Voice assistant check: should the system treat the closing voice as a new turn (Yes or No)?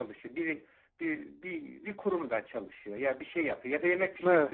No